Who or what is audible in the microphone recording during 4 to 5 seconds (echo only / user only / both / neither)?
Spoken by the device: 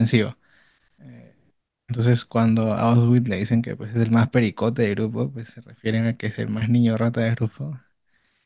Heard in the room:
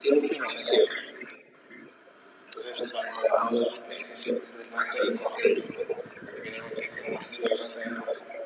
echo only